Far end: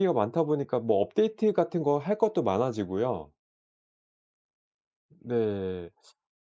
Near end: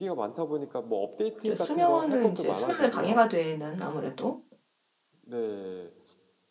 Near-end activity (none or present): present